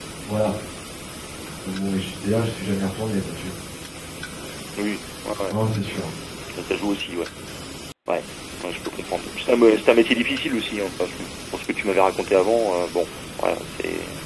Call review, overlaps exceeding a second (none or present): none